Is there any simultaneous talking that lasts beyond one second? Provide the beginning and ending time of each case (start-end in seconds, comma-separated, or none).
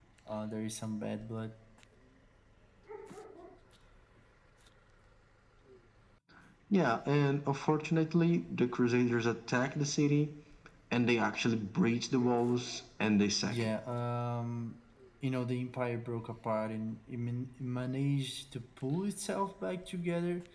none